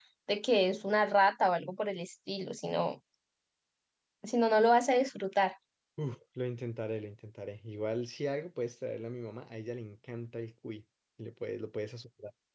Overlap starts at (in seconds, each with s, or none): none